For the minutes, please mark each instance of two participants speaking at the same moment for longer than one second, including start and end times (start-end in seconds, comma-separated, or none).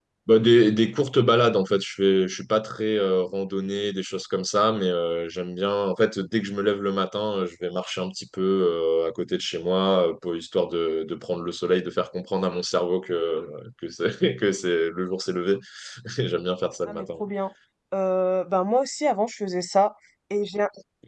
none